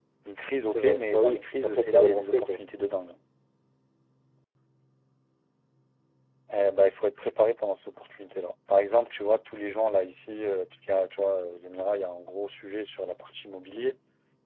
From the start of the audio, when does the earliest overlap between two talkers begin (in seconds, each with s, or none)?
0.7 s